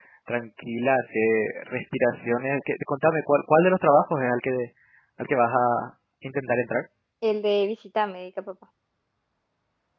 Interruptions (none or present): none